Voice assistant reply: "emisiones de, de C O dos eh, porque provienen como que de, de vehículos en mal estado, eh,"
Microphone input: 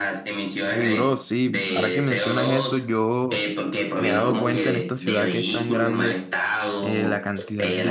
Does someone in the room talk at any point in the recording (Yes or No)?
Yes